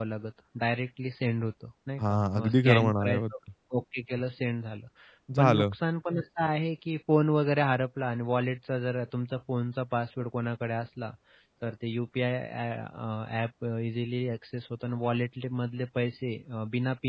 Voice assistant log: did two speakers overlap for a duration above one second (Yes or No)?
Yes